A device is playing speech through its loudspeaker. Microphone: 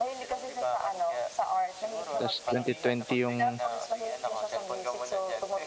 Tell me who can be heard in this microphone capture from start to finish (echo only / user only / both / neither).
both